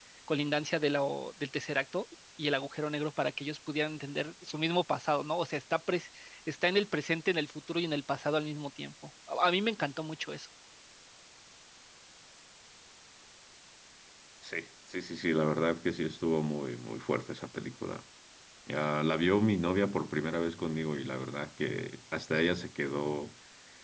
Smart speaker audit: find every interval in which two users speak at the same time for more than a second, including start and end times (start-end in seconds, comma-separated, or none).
none